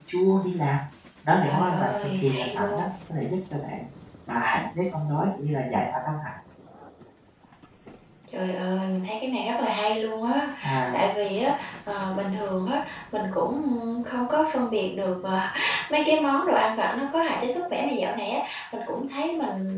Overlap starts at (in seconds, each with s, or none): 1.4 s